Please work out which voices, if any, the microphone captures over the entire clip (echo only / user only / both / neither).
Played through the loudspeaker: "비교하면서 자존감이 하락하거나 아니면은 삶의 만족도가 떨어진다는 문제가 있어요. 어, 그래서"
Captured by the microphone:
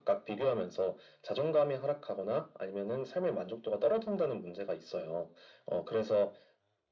echo only